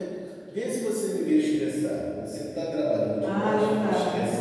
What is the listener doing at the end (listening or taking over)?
taking over